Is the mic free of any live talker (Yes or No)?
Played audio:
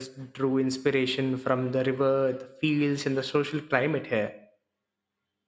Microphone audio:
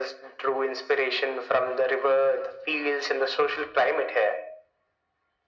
Yes